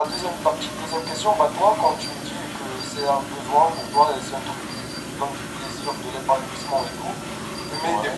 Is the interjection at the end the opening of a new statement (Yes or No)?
No